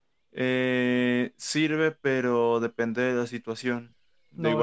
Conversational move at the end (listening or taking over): taking over